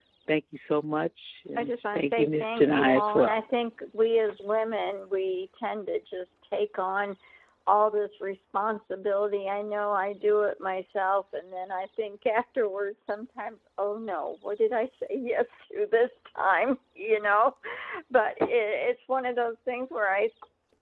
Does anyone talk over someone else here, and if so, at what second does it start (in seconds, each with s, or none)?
1.6 s